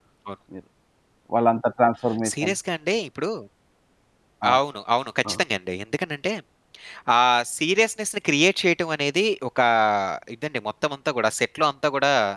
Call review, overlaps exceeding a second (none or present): none